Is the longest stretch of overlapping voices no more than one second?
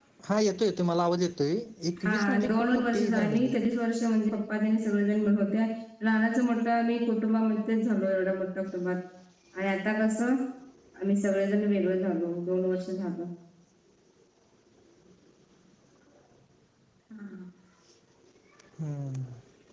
No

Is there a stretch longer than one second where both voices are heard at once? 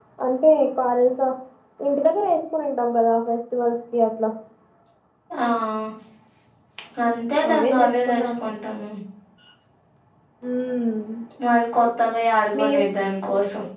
No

